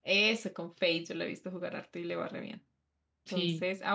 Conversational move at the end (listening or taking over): listening